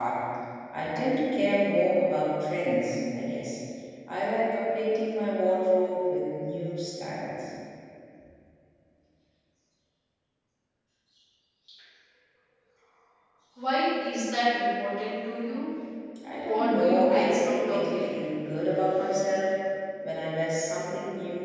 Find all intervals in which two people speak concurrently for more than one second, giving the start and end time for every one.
16.4-18.1

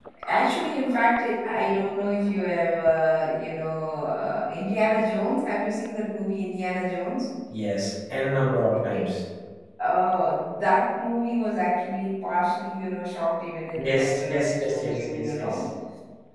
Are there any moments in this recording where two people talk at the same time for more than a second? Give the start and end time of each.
13.8-15.6

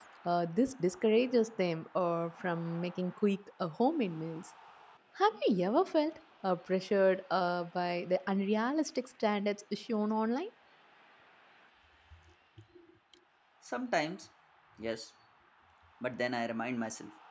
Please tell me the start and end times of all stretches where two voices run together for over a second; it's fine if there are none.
none

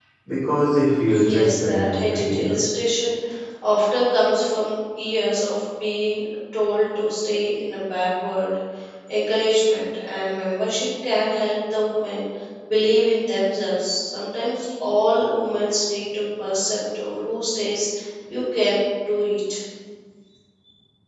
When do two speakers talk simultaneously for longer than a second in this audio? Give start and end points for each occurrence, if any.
1.2-2.6

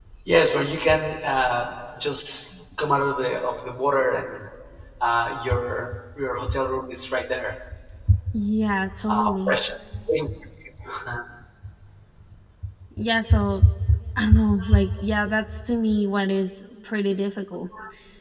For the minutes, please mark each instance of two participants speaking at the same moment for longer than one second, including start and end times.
none

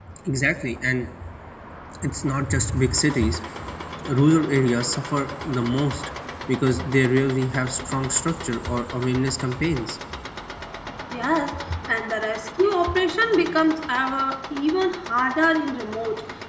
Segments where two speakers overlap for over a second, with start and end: none

